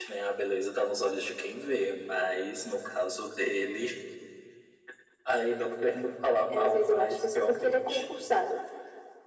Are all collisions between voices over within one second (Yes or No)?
No